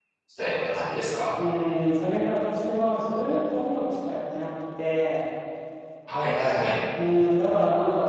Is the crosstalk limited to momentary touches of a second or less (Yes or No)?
Yes